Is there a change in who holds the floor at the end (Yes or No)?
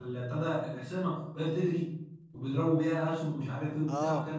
No